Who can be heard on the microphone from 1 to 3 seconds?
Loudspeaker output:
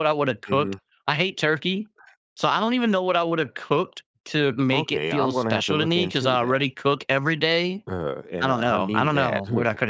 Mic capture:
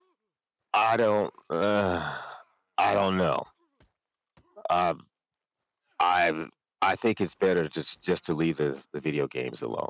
user only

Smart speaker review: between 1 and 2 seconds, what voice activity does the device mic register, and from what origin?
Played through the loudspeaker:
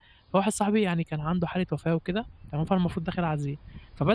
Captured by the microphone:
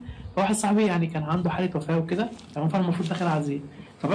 echo only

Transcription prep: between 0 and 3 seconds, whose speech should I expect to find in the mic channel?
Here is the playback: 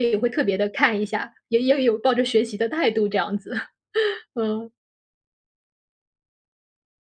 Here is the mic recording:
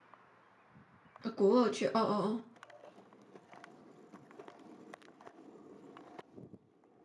user only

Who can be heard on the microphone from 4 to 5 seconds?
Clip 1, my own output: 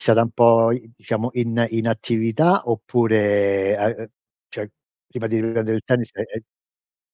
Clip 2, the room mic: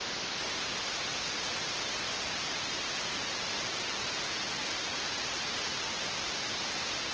neither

